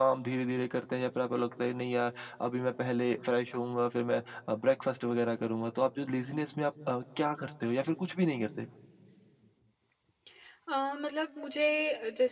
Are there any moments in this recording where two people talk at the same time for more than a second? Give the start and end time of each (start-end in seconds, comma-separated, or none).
none